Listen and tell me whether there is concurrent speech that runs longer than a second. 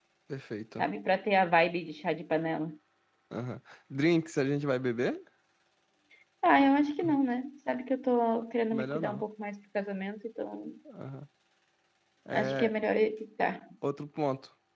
No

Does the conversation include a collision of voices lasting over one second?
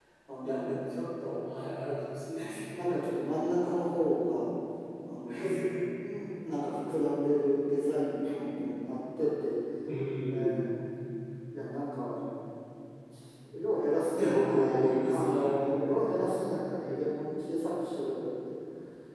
Yes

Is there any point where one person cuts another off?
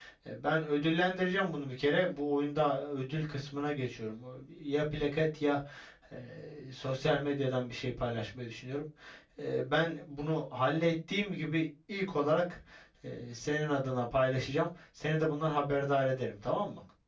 No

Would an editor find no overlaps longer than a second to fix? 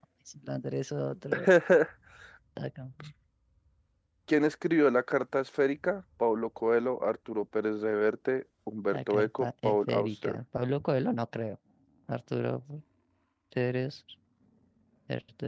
No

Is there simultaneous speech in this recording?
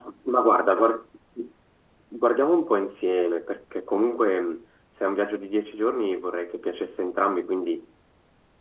No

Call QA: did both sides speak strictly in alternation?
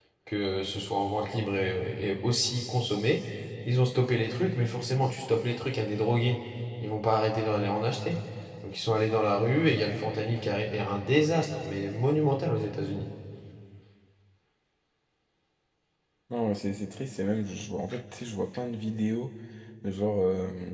Yes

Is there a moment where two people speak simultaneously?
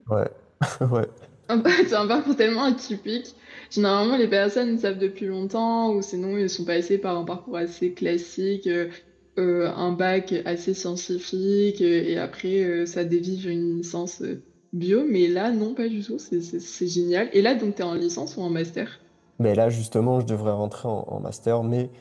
No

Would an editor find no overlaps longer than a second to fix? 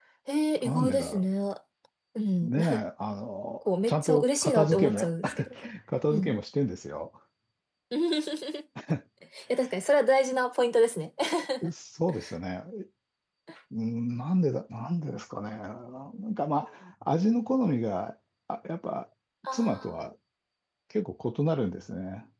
No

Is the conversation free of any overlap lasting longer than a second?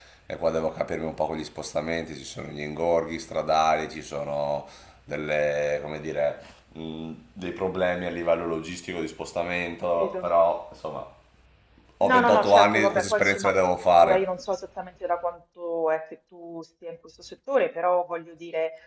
No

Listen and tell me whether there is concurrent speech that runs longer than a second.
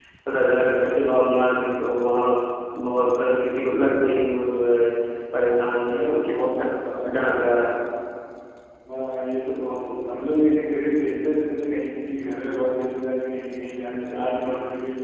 Yes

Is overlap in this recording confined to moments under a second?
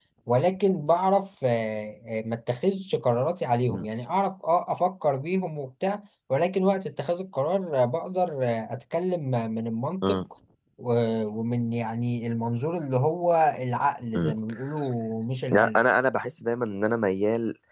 Yes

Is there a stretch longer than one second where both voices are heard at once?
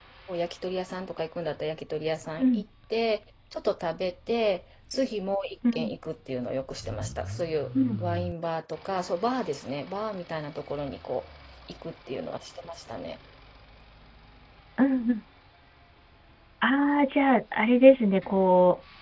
No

